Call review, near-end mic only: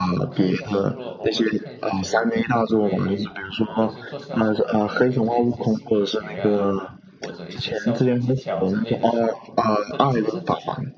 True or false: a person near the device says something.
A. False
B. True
B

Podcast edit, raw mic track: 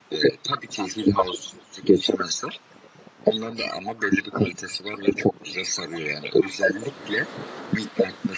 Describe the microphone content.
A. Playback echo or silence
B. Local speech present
A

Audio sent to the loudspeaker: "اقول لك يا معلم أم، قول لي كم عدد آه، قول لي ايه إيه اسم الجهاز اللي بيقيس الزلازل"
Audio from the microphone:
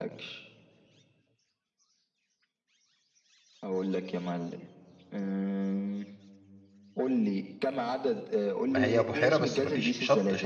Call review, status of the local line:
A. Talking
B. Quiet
A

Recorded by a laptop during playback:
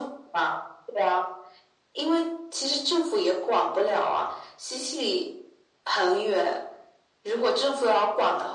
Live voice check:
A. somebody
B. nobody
B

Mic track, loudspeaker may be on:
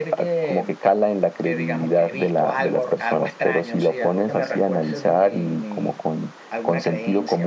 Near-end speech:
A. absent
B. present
A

